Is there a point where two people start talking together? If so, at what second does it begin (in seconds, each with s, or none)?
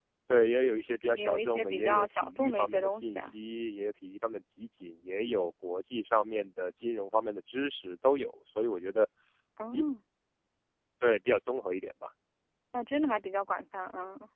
1.1 s